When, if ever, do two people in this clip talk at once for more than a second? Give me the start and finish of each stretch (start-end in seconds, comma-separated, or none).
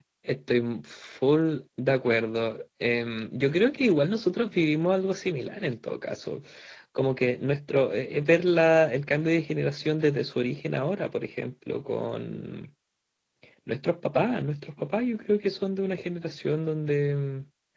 none